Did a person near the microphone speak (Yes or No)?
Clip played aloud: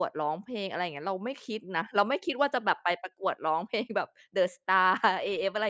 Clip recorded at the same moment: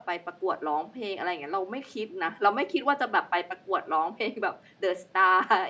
No